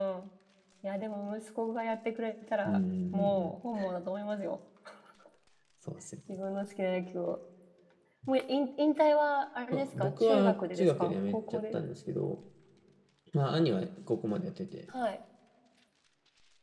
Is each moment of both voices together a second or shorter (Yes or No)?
No